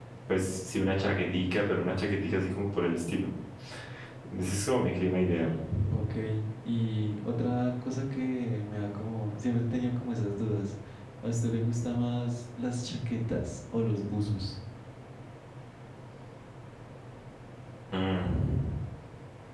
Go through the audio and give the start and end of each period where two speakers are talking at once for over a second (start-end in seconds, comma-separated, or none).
none